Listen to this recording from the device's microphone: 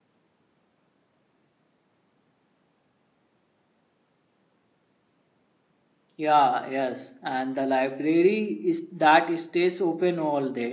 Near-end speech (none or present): present